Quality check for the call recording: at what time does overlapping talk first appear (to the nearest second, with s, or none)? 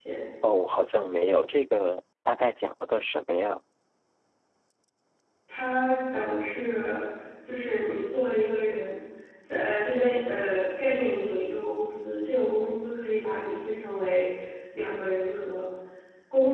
none